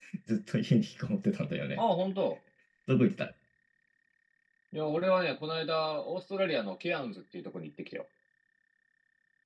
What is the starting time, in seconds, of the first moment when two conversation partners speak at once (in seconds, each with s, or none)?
none